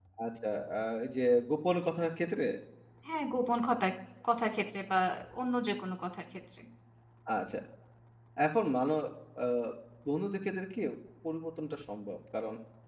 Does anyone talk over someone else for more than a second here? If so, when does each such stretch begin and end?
none

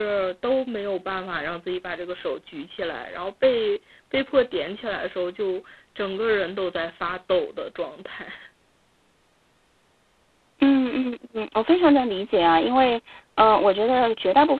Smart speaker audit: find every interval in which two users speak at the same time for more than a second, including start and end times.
none

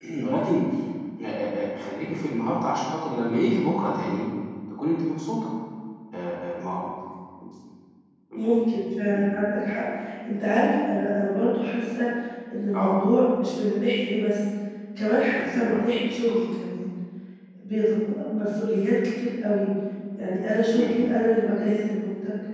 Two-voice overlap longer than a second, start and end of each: none

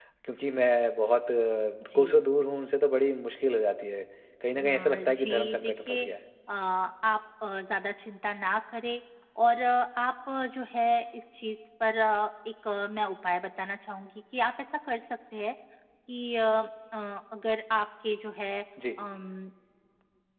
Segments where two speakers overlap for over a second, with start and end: 4.5-6.0

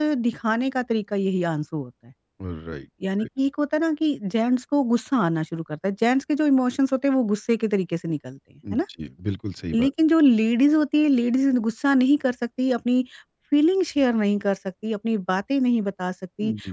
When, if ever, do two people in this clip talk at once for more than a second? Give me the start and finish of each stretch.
none

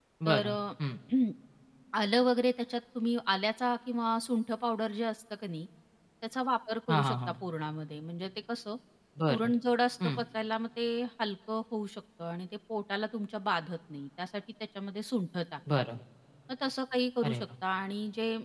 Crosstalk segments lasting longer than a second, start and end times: none

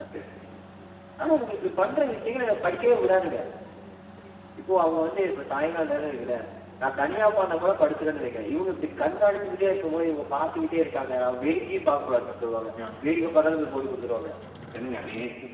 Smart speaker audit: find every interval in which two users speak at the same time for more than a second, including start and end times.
none

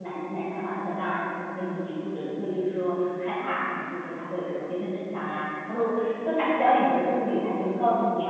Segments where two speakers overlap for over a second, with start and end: none

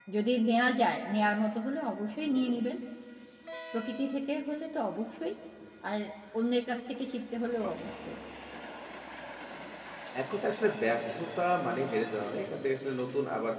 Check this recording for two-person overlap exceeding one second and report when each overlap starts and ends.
none

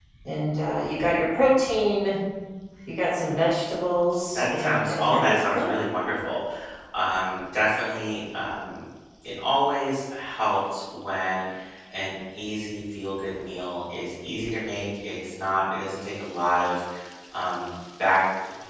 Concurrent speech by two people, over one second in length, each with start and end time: 4.3-5.7

